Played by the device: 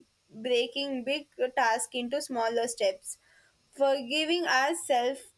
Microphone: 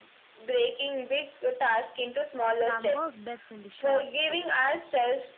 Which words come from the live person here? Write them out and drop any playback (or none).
Some work best in the short burst.